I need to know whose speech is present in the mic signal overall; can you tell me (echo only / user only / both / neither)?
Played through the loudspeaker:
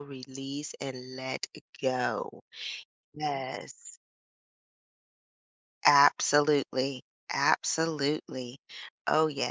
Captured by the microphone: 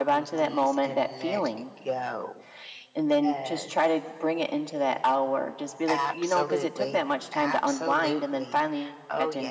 both